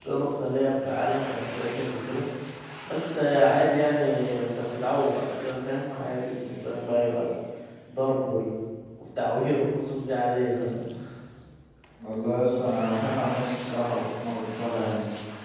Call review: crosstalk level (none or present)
none